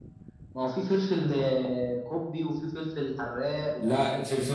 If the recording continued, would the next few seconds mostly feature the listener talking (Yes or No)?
Yes